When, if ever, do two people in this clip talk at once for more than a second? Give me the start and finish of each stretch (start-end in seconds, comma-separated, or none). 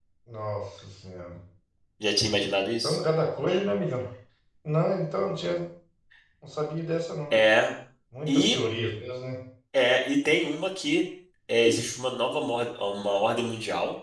none